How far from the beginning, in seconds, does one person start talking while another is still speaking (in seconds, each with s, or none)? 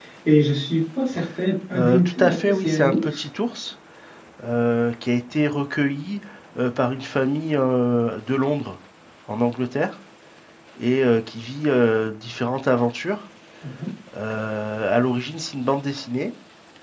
1.8 s